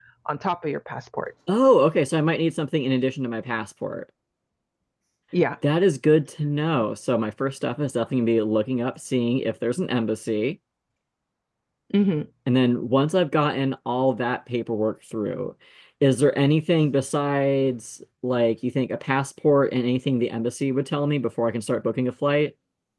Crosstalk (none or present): none